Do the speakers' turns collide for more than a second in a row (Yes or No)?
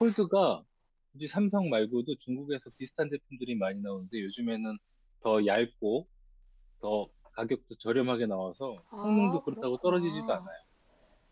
Yes